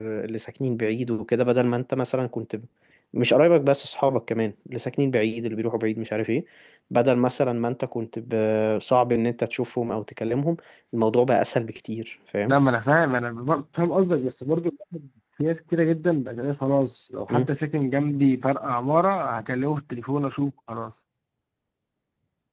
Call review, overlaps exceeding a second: none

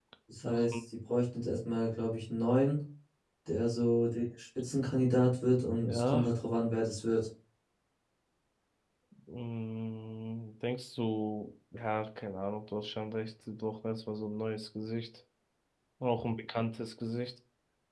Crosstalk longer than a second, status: none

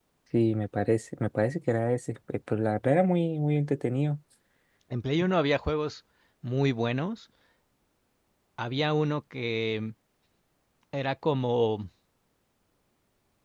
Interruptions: none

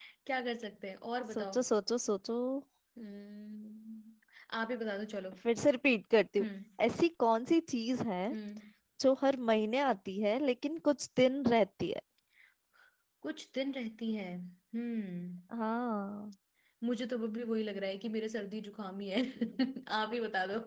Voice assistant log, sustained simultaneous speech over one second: none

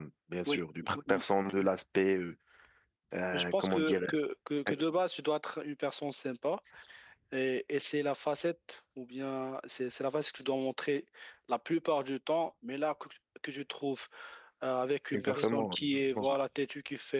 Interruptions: present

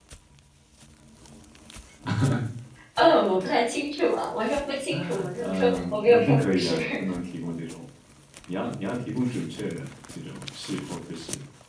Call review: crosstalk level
present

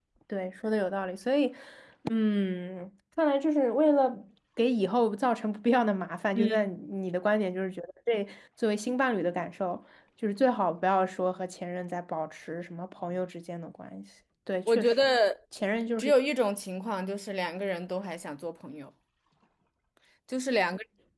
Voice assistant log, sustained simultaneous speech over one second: none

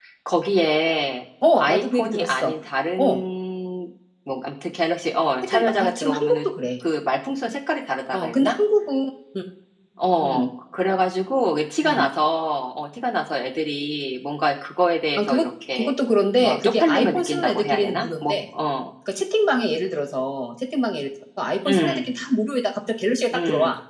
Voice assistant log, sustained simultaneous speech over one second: present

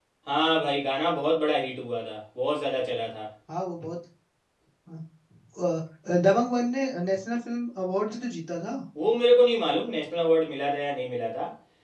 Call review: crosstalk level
none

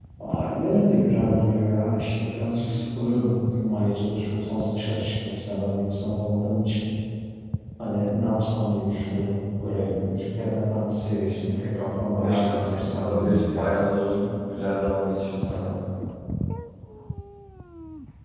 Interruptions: present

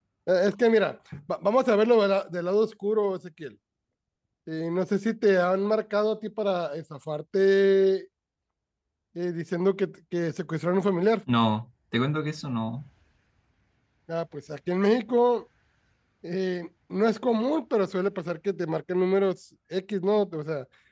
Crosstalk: none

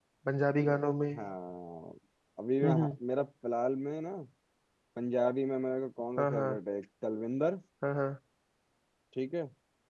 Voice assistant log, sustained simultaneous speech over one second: none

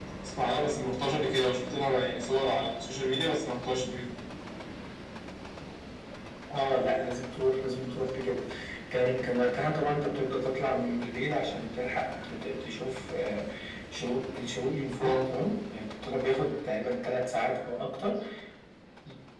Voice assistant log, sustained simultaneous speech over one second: none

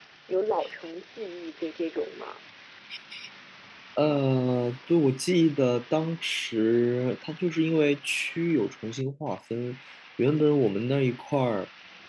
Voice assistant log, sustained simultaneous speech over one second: none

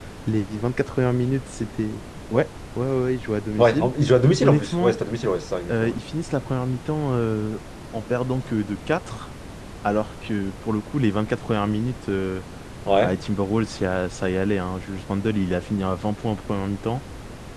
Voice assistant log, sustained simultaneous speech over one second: none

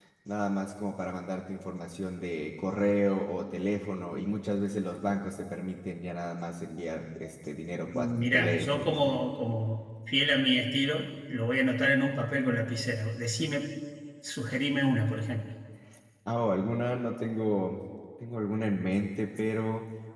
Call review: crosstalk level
present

